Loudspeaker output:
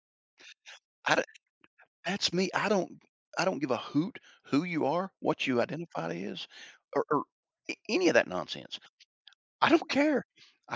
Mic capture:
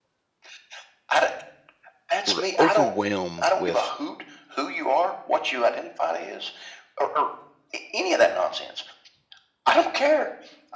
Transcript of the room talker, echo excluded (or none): we're overwhelmed with